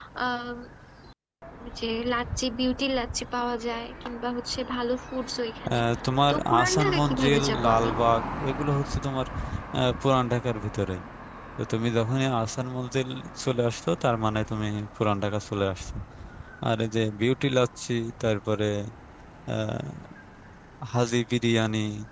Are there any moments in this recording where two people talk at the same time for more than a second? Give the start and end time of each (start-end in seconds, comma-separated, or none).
6.3-7.9